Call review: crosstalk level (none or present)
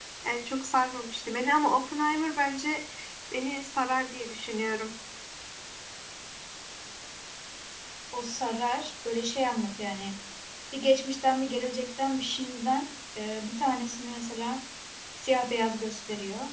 none